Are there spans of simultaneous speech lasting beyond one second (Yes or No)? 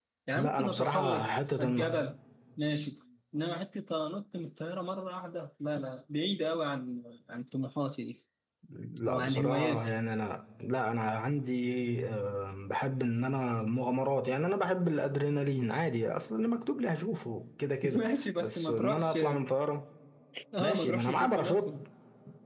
Yes